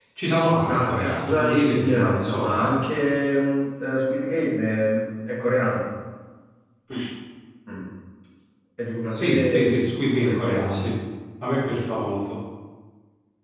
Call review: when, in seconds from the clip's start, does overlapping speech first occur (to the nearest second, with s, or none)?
1 s